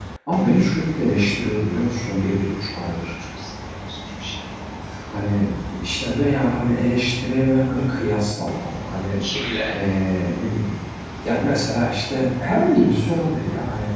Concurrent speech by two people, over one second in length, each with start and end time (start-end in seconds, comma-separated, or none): none